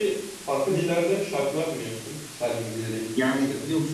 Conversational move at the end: taking over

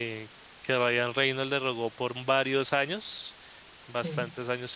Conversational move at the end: listening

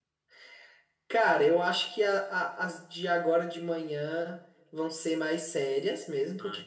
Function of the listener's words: listening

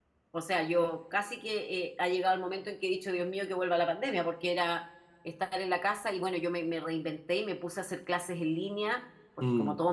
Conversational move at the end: listening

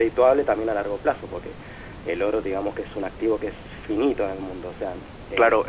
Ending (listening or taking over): taking over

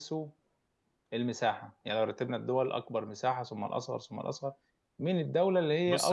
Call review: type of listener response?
listening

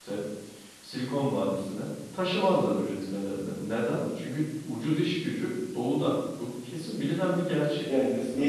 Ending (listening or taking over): taking over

